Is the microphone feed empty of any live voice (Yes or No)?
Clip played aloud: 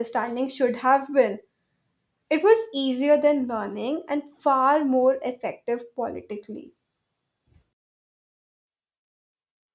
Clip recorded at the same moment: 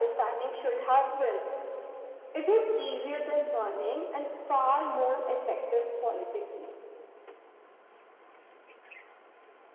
Yes